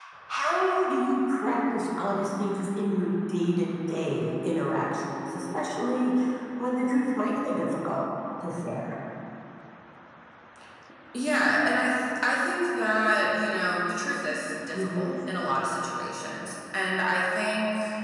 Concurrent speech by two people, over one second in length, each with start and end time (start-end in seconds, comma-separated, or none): none